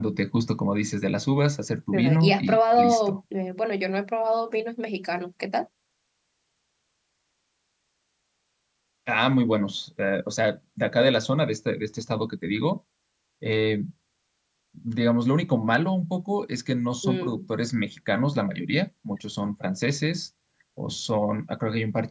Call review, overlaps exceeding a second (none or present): present